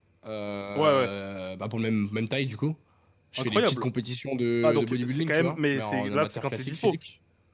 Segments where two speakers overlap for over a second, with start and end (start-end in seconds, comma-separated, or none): 4.6-7.0